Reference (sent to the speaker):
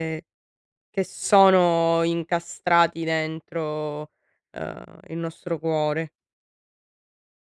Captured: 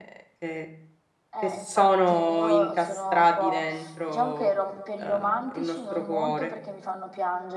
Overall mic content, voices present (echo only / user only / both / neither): both